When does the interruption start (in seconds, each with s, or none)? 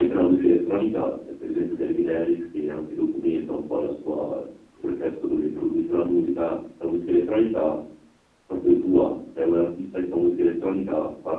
none